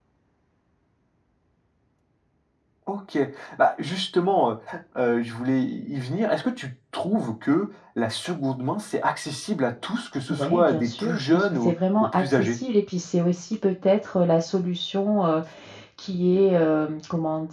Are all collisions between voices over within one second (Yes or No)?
No